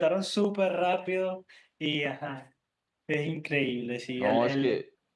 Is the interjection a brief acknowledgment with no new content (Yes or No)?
No